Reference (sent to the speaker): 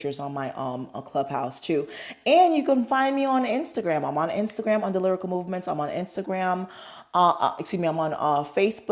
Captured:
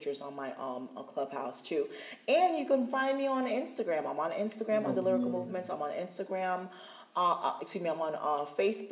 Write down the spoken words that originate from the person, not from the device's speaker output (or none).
Oh yes.